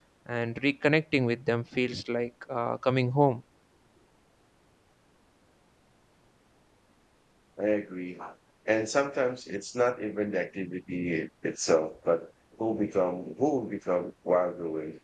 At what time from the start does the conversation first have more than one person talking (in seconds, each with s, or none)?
none